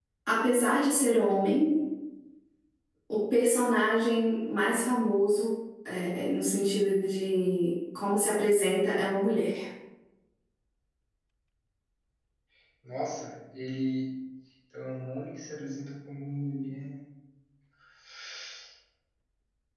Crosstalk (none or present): none